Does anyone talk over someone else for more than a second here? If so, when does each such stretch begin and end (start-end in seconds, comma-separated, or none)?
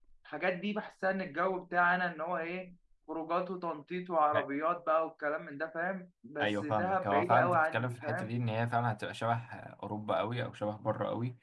6.4-8.3